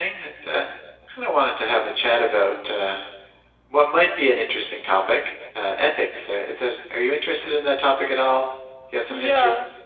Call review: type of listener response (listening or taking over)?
taking over